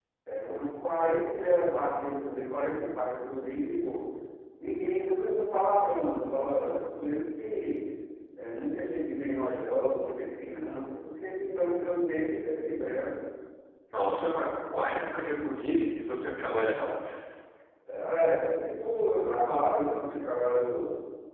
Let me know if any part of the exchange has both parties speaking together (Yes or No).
No